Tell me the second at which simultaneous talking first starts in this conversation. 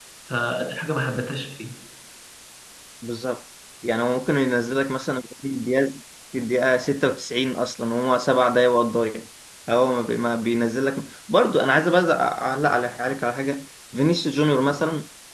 none

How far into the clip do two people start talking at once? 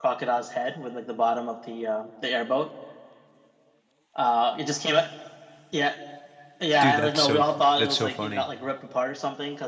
6.8 s

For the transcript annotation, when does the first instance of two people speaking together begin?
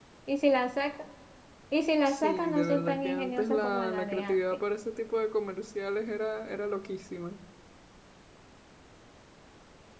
2.0 s

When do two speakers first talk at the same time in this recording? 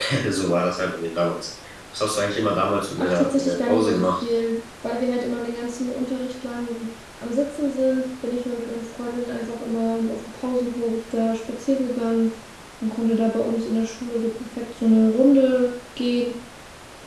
3.0 s

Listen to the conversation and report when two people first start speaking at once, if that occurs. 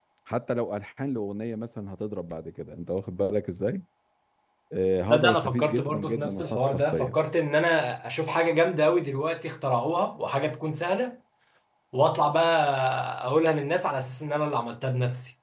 5.1 s

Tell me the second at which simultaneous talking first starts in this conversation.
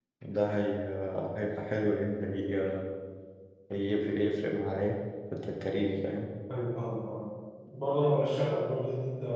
none

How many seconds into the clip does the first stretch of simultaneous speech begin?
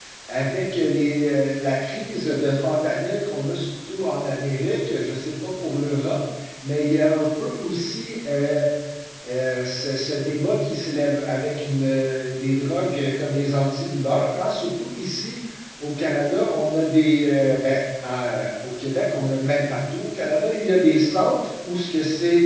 none

